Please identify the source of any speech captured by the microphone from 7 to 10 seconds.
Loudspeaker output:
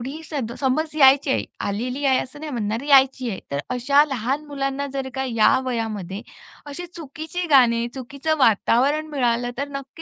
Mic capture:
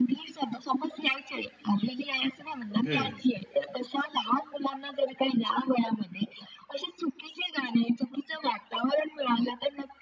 echo only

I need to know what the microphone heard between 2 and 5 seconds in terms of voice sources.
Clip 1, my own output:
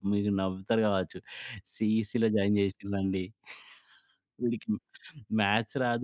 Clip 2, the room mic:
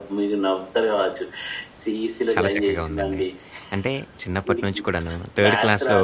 both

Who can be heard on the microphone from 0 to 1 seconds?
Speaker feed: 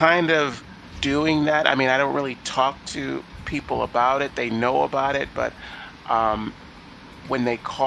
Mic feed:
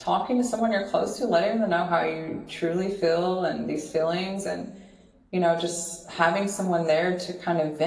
user only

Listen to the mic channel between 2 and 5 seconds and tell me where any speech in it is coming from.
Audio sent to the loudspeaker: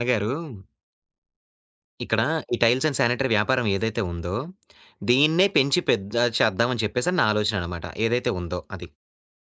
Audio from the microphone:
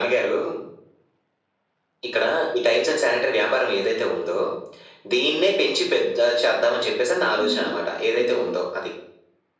echo only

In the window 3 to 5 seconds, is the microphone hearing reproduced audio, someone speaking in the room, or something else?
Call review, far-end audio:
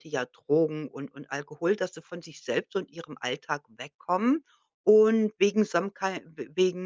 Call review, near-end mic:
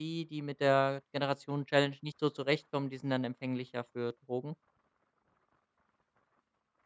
user only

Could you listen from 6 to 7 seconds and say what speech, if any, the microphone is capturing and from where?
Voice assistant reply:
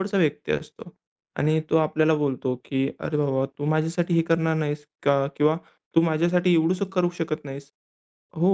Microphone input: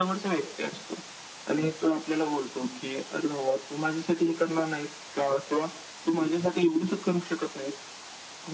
echo only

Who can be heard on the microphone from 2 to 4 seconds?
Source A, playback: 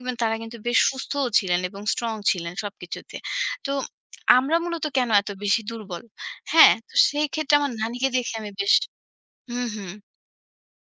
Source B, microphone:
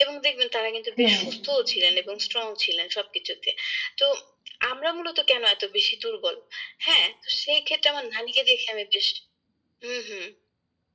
echo only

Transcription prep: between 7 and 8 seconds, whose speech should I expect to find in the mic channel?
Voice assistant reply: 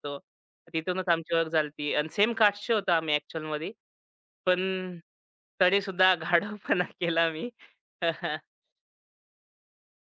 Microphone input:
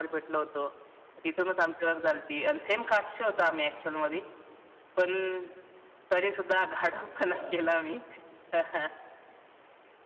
both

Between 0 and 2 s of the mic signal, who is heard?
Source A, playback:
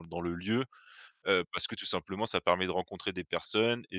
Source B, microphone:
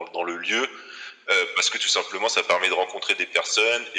echo only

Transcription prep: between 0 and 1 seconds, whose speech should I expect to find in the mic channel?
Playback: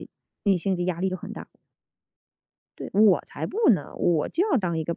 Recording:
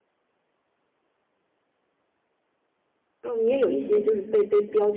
neither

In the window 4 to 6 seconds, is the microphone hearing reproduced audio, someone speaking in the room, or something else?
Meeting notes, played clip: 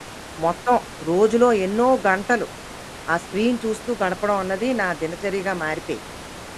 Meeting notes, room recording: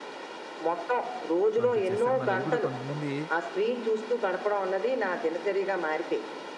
echo only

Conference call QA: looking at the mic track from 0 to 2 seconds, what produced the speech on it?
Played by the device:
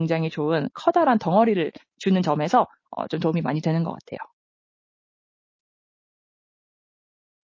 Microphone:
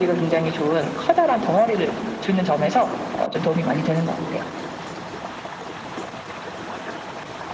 echo only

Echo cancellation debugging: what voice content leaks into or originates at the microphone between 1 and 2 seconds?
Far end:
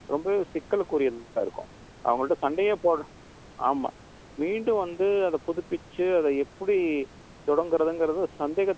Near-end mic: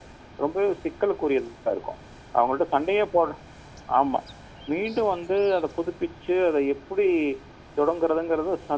echo only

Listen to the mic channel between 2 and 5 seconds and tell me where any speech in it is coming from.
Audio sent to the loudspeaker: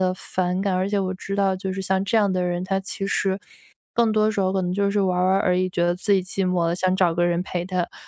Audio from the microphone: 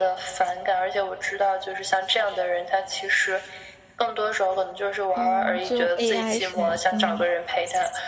echo only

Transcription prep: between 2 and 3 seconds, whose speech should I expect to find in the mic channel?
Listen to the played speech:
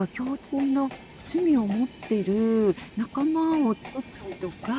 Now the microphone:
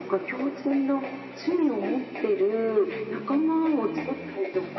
echo only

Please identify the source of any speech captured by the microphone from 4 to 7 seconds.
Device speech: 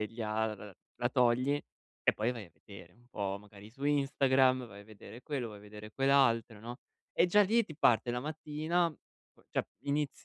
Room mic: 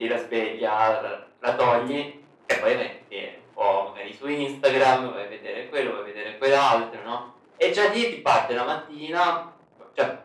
echo only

